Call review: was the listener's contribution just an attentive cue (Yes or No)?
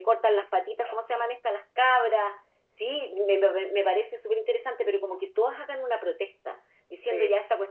Yes